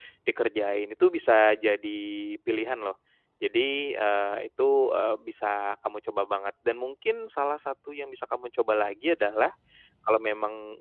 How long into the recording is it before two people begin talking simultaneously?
none

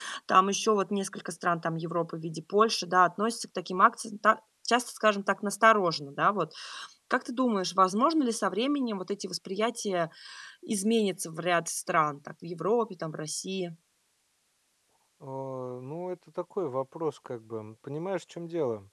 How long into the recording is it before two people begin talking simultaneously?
none

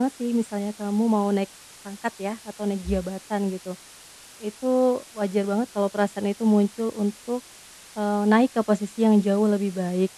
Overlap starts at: none

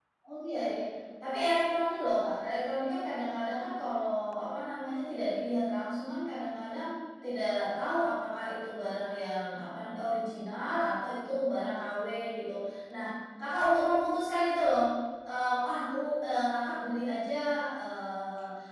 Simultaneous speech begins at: none

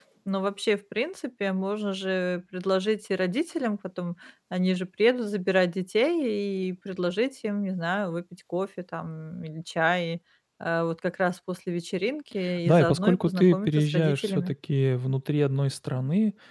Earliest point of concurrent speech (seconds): 12 s

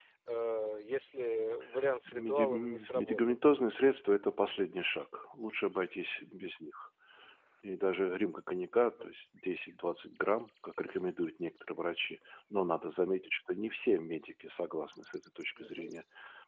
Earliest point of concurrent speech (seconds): 2 s

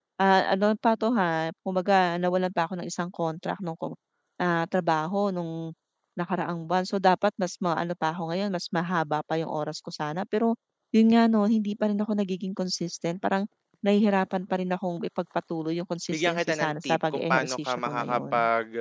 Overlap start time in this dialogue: 16 s

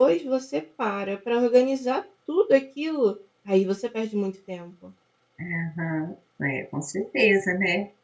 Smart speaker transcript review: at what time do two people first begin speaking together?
none

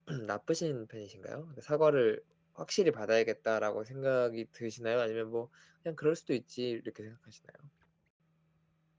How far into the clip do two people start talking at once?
none

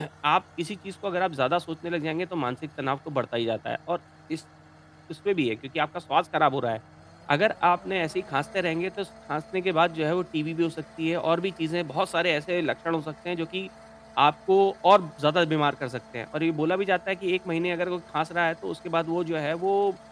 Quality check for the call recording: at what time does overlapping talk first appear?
none

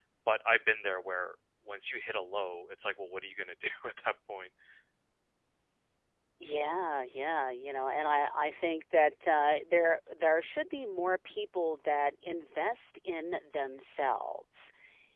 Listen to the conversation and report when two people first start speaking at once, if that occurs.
none

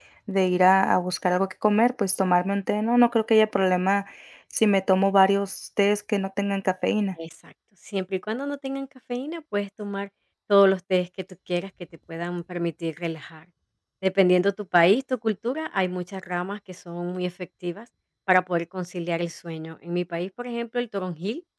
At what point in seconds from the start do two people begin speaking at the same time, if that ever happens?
none

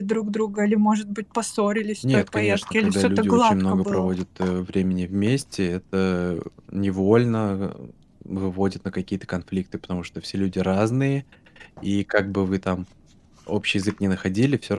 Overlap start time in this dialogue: 2 s

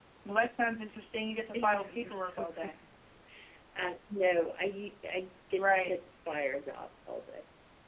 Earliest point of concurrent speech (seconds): 2 s

